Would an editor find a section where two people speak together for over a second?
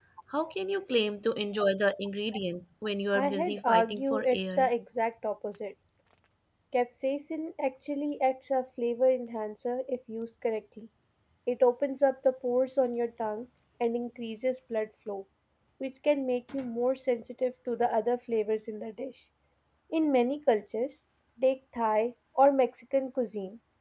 Yes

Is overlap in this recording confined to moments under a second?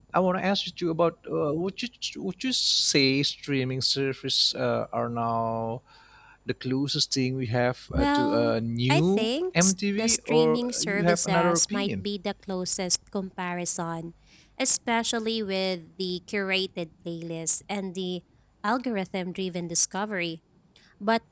No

